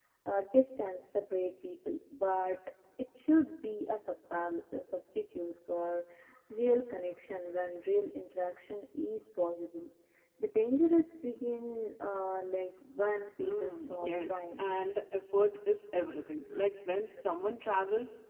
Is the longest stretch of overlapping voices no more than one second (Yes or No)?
No